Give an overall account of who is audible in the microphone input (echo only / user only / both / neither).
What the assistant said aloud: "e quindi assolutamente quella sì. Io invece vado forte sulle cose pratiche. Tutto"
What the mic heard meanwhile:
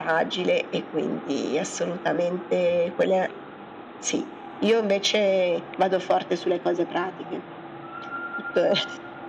echo only